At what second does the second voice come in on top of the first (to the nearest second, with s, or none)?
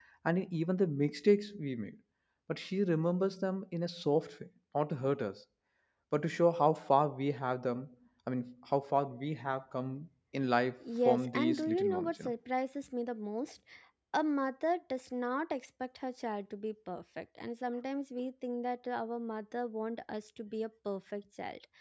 11 s